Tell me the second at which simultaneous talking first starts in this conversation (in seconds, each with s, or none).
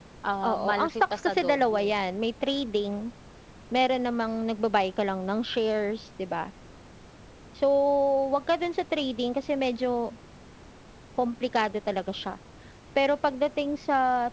0.5 s